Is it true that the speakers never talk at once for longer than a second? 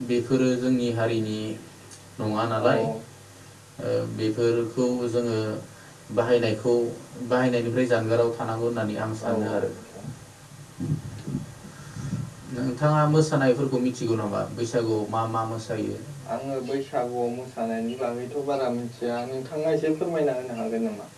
Yes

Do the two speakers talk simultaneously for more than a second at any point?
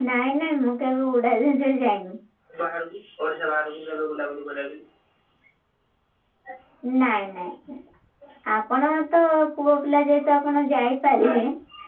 No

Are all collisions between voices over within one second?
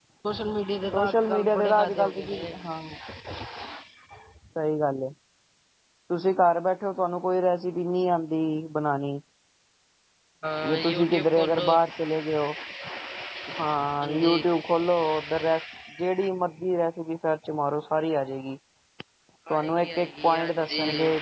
No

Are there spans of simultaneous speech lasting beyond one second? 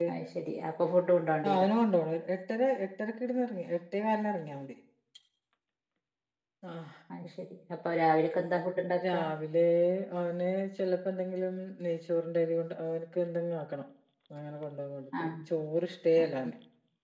No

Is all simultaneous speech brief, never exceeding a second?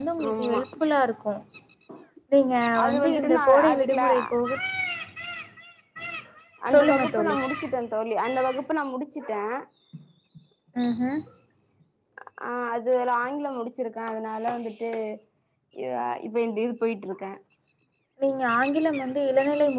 No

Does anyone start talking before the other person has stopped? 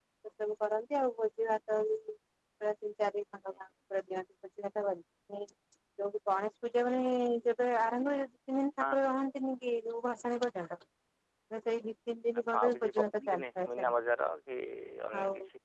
Yes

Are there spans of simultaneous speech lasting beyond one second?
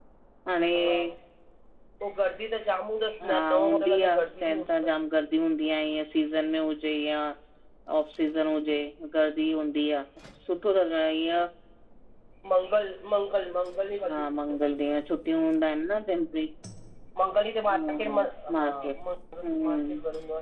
Yes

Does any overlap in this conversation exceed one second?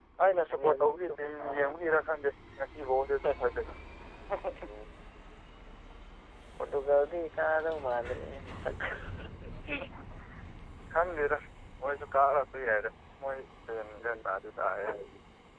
Yes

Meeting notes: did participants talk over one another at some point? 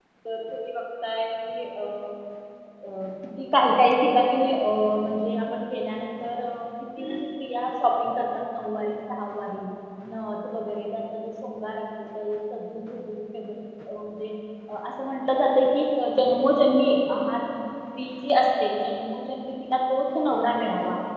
No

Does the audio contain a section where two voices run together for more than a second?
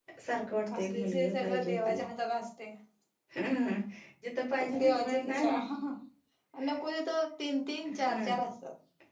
Yes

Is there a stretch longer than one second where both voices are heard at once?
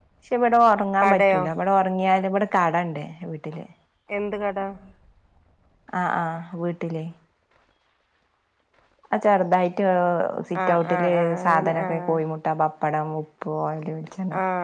Yes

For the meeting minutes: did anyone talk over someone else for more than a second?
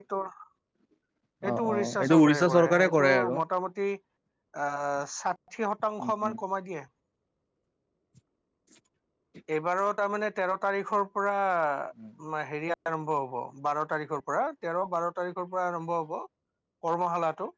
Yes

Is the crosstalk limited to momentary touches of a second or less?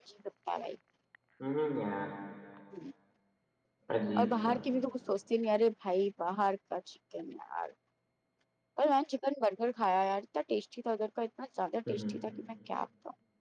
Yes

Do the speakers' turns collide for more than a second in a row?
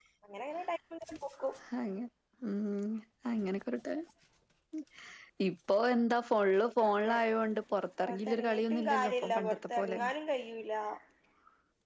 Yes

